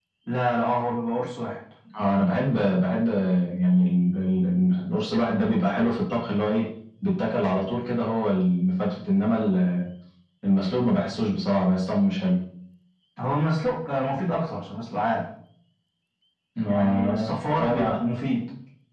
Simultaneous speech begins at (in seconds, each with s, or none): 16.7 s